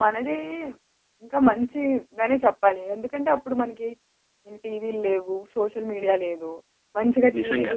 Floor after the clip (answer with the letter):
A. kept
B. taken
A